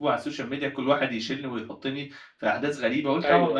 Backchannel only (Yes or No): Yes